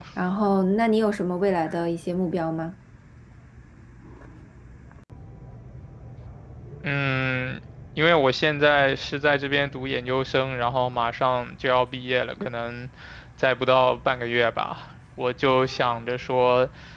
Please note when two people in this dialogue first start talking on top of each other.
none

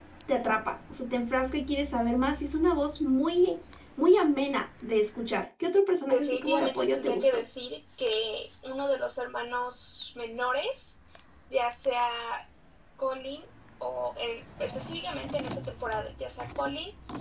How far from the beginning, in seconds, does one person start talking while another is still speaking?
6.0 s

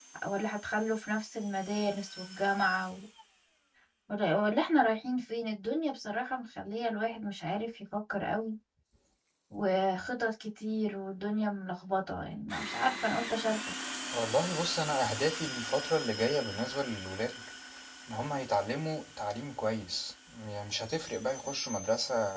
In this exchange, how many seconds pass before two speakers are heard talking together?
none

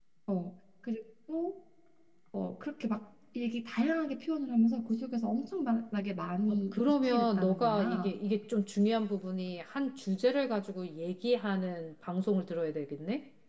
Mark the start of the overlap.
6.5 s

